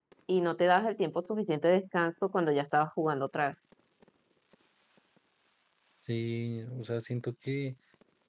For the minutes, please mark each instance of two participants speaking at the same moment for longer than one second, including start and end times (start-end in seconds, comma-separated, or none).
none